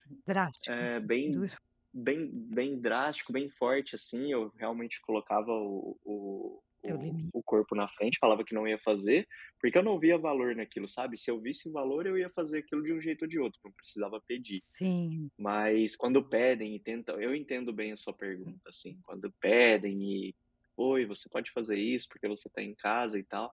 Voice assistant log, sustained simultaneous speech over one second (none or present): none